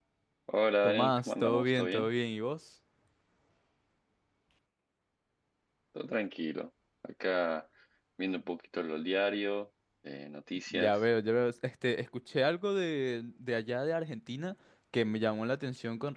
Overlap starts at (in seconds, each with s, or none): 0.8 s